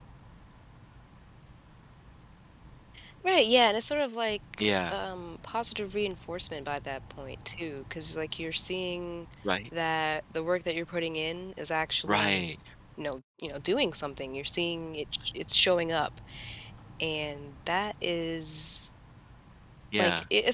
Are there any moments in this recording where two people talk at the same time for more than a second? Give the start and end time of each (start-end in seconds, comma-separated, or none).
none